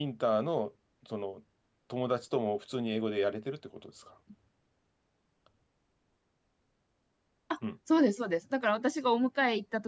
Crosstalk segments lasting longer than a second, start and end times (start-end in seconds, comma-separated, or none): none